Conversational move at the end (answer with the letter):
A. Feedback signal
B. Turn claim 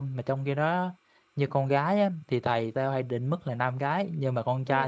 A